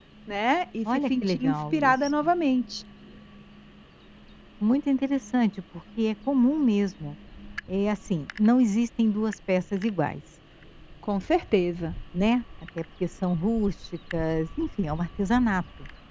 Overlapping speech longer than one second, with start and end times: 0.8-2.1

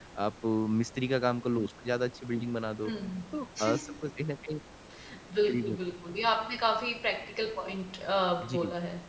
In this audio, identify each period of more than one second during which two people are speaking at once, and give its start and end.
none

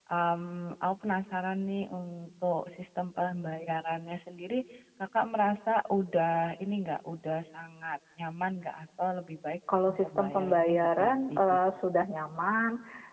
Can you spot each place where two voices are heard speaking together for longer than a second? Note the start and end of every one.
9.9-11.6

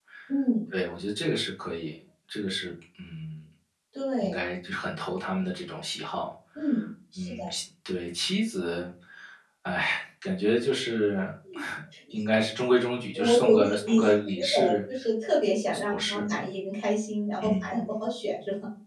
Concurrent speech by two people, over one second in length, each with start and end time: 13.2-14.7

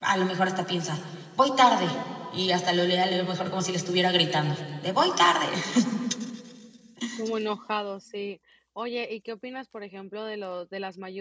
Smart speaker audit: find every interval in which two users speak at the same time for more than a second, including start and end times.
none

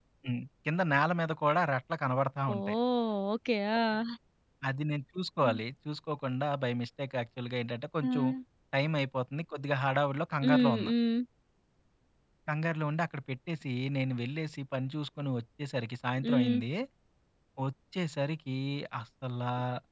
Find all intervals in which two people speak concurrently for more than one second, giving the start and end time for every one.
none

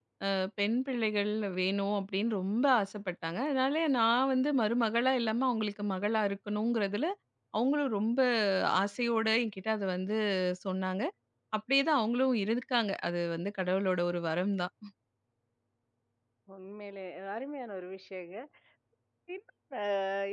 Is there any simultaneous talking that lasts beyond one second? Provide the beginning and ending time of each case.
none

